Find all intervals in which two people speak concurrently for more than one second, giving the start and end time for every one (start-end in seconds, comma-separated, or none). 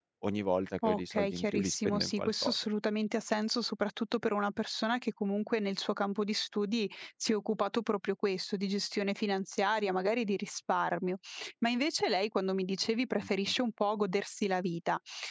0.8-2.5